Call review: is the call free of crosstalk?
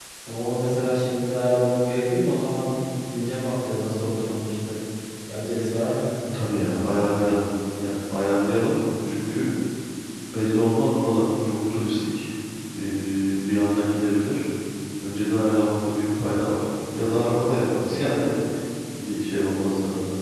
Yes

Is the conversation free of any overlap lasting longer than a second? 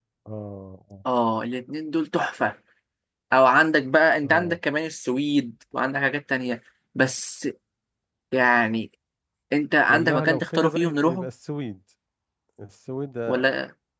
No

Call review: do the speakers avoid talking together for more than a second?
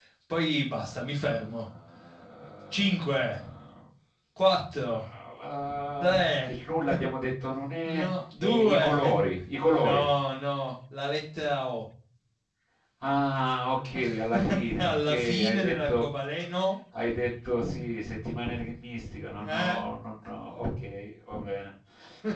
No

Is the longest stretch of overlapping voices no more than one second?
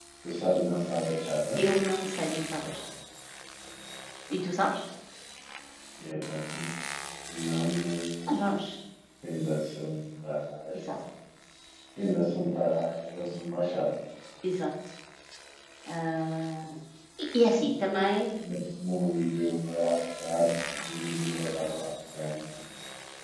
Yes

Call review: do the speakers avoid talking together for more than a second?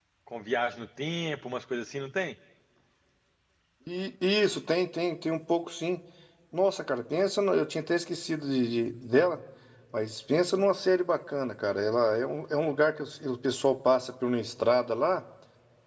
Yes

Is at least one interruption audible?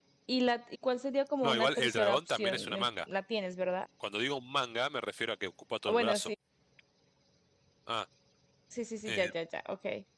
Yes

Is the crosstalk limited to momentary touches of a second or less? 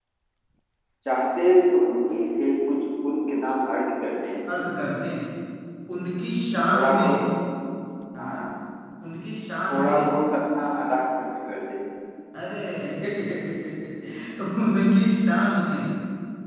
Yes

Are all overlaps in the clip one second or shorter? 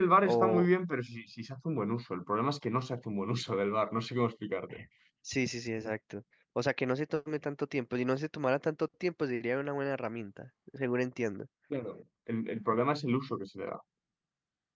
Yes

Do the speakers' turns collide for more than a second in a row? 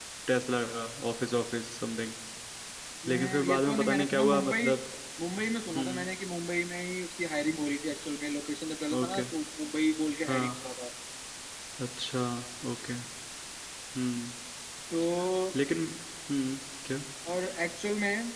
Yes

